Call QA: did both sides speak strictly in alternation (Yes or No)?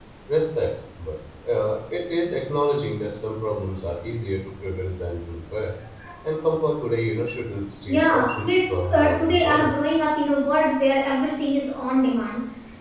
No